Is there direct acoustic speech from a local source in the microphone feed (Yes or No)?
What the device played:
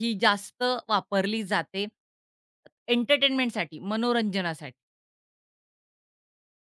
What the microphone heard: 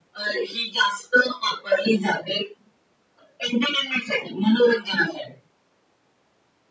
No